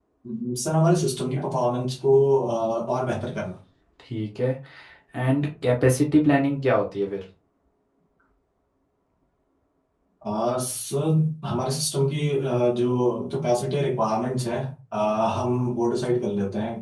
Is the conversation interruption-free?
Yes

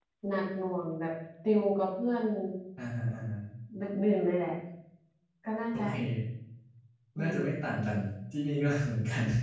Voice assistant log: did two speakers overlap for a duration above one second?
No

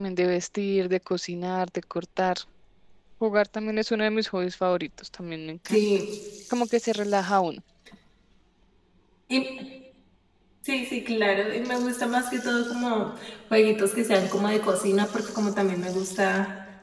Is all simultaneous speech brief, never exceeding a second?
Yes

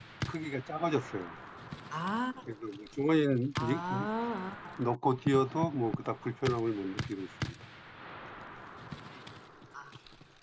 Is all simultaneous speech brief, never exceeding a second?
Yes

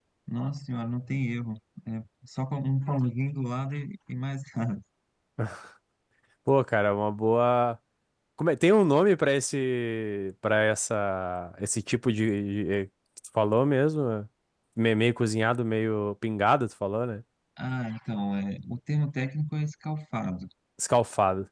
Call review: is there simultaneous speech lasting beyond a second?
No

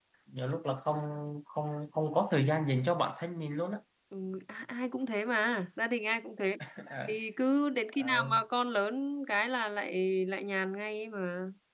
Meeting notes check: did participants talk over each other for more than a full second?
No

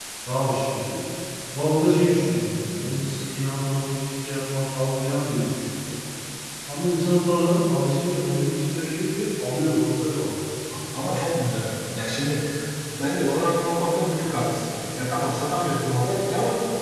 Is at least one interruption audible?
No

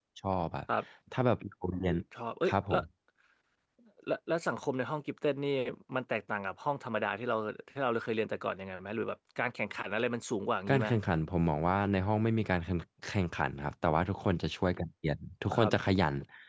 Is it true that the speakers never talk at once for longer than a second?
Yes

